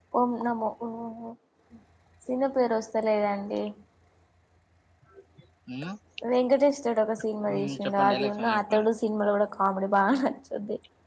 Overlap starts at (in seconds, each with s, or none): 7.5 s